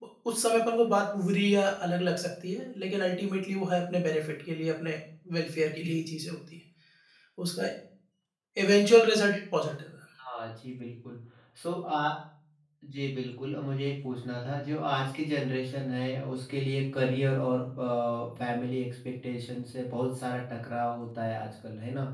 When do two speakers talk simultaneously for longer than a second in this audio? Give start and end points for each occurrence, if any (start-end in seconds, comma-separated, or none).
none